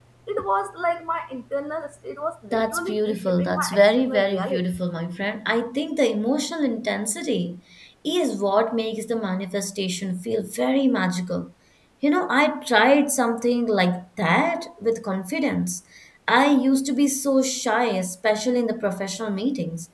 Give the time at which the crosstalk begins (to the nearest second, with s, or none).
3 s